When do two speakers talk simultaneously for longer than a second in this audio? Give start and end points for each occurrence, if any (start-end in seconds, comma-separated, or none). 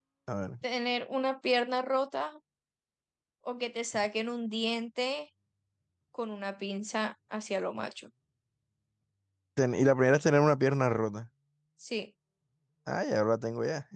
none